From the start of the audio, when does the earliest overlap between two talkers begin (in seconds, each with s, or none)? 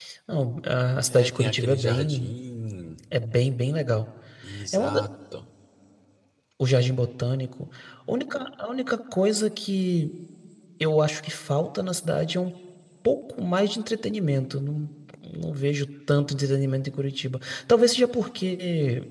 1.1 s